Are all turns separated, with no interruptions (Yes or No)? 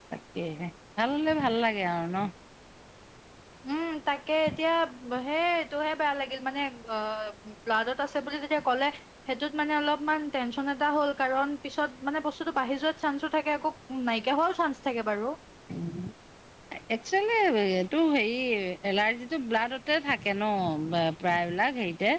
Yes